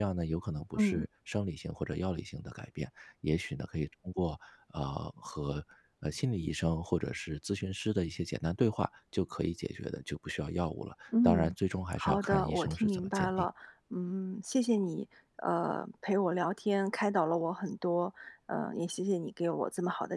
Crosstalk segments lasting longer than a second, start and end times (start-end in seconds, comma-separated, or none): 11.9-13.5